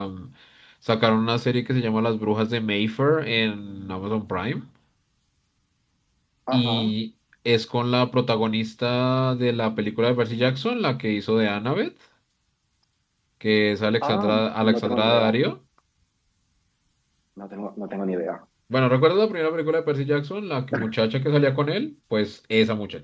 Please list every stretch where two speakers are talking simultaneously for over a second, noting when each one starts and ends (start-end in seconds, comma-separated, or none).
14.0-15.4